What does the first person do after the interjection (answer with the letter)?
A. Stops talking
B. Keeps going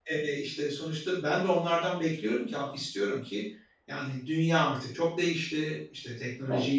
B